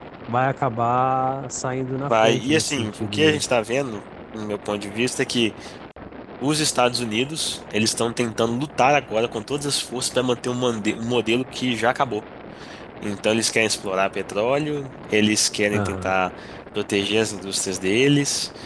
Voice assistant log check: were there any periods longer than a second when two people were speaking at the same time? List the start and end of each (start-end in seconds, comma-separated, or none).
2.1-3.4